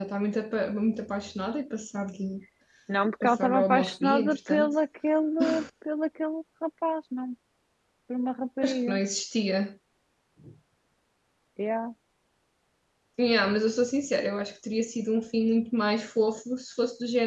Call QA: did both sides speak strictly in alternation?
No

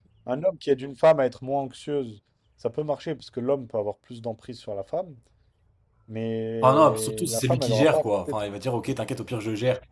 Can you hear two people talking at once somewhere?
Yes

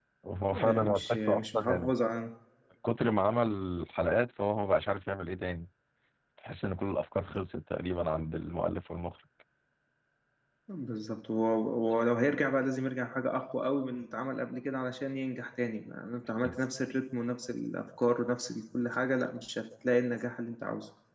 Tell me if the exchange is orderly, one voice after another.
No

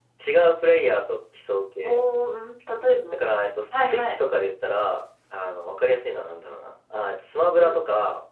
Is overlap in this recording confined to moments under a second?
Yes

